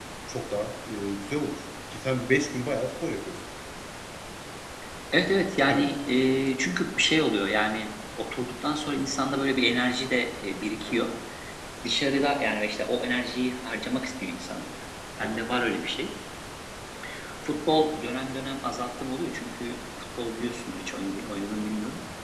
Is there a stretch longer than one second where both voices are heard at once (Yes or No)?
No